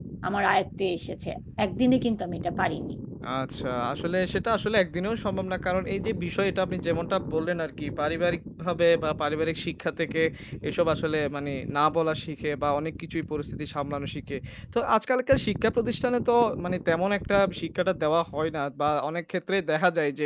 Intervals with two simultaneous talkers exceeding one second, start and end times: none

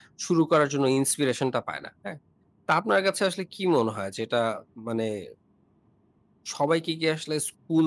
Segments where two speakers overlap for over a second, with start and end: none

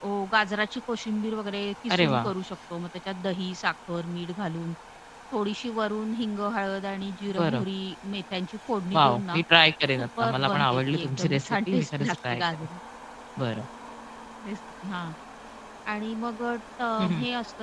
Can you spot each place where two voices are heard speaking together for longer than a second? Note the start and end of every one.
10.0-12.4

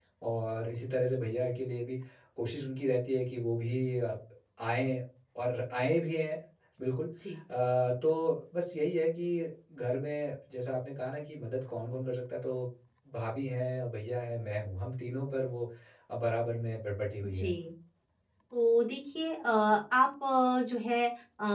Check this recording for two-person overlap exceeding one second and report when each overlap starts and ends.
none

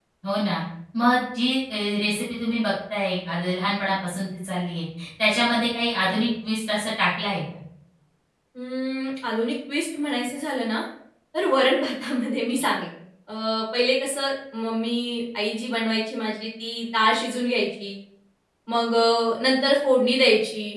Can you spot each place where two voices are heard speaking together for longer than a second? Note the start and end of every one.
none

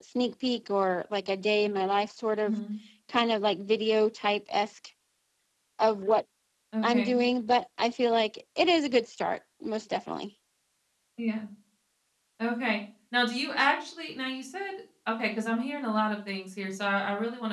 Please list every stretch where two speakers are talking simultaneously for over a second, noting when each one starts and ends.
none

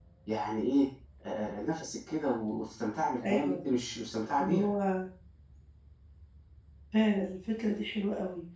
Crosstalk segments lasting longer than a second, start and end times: none

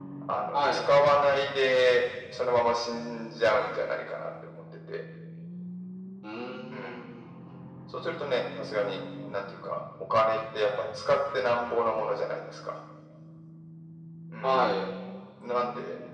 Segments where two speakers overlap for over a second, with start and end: none

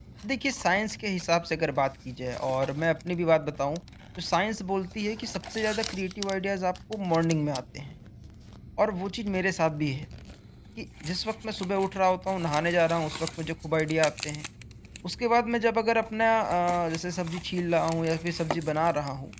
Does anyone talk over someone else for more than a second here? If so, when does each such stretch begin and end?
none

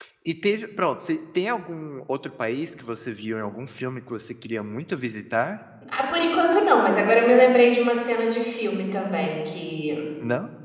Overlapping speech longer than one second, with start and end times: none

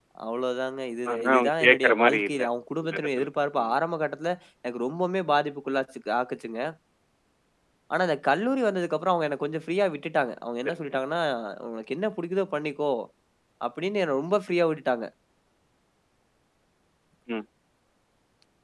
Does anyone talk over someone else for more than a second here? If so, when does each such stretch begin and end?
1.1-2.4

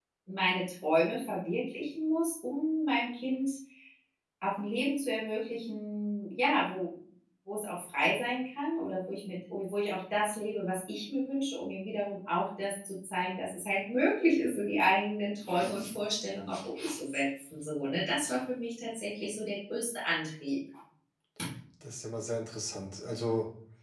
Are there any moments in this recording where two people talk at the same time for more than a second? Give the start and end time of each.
none

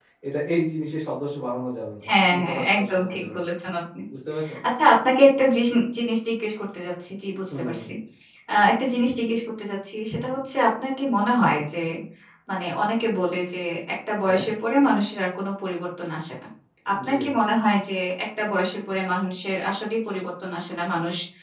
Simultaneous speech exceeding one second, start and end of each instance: 2.1-3.4

